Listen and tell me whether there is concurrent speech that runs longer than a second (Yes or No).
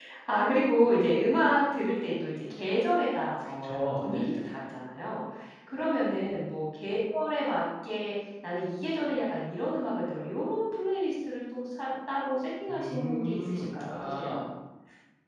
Yes